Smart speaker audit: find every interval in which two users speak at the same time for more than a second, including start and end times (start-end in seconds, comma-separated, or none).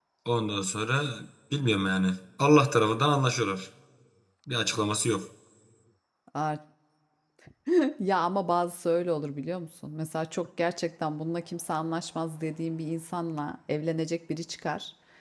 none